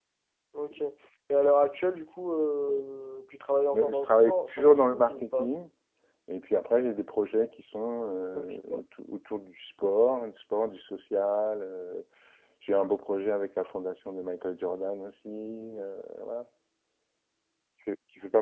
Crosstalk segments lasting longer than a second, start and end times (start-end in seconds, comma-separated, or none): 3.7-5.5